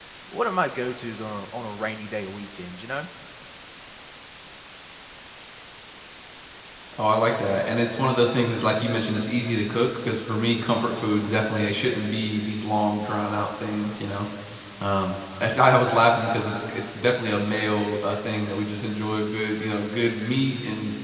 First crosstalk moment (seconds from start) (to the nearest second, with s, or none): none